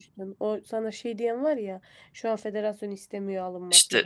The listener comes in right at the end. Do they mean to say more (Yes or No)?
Yes